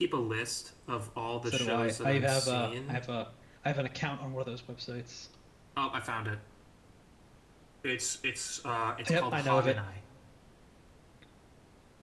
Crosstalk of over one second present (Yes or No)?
Yes